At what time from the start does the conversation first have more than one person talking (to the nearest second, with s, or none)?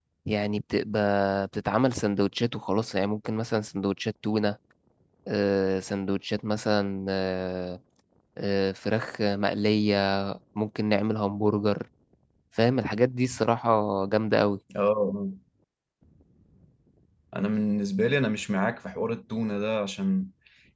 none